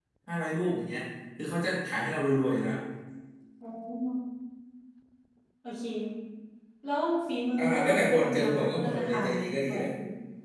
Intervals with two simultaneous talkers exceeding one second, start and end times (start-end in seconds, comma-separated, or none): 7.6-9.9